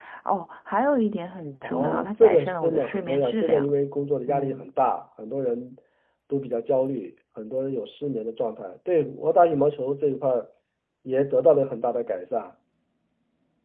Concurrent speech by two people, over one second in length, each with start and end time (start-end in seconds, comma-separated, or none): 1.6-3.7